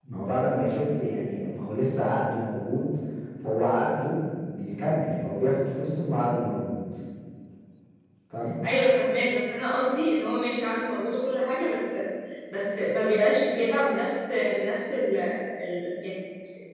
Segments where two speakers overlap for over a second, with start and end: none

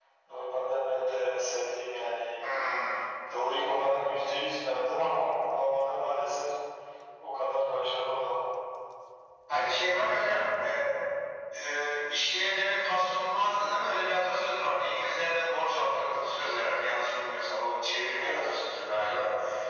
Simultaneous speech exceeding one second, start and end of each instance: none

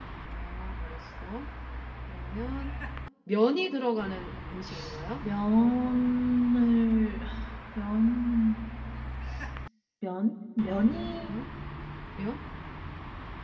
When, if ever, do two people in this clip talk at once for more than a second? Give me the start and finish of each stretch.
none

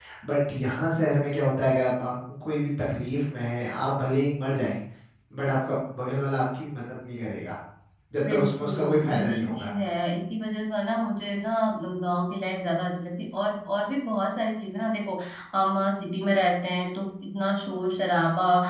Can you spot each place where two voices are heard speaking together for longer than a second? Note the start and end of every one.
8.3-9.7

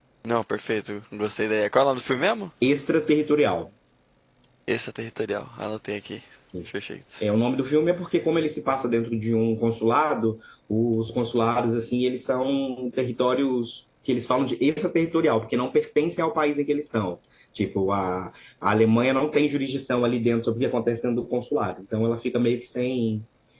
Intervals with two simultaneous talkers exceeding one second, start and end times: none

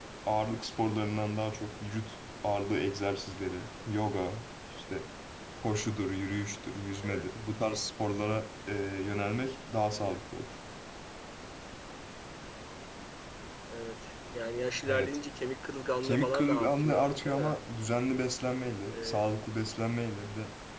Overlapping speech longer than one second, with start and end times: 16.0-17.6

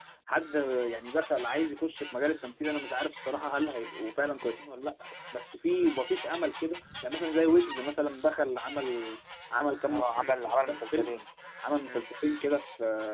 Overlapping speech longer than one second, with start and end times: 9.8-11.1

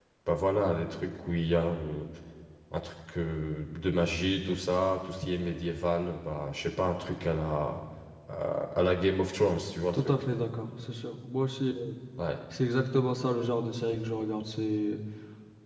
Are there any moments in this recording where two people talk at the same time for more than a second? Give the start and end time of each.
none

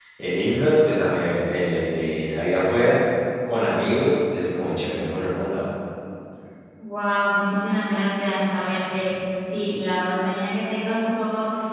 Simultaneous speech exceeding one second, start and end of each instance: none

